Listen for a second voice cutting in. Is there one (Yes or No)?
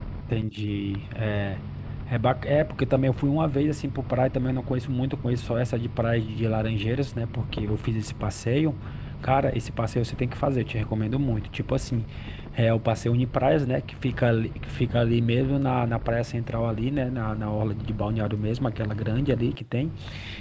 No